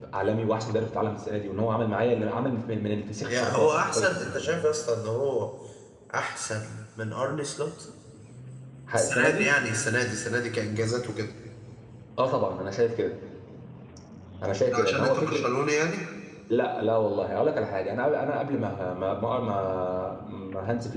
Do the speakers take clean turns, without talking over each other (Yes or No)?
No